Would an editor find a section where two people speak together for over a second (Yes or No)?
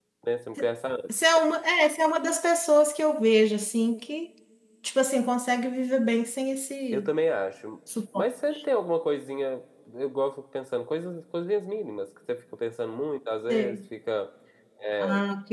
No